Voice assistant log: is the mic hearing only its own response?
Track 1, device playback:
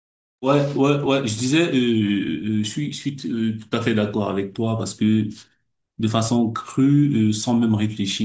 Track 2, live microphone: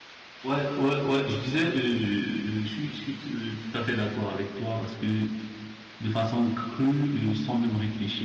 Yes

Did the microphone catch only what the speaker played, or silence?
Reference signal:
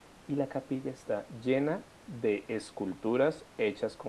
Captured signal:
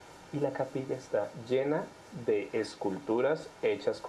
Yes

